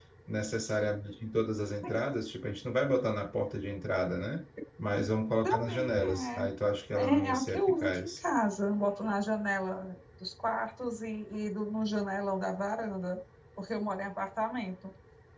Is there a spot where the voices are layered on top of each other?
Yes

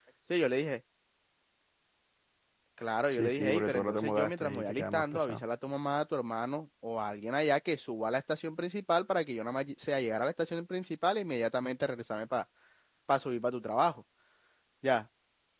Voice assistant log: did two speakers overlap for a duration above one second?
Yes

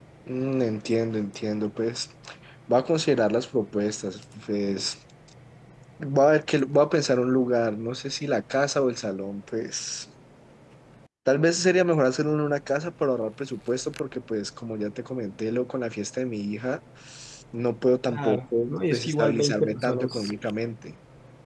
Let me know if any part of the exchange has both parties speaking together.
Yes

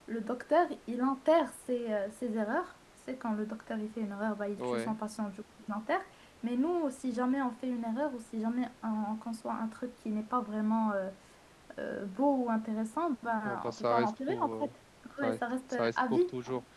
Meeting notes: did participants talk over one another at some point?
Yes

